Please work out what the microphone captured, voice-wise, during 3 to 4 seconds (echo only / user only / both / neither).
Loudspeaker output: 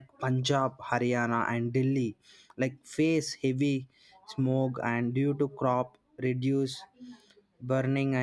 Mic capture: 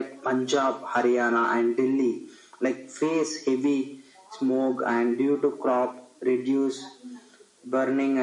echo only